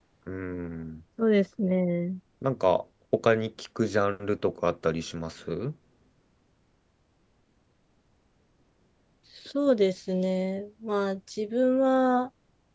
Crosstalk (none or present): none